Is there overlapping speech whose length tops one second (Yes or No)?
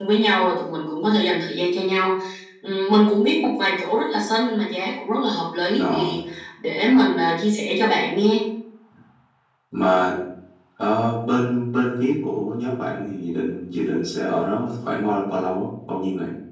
No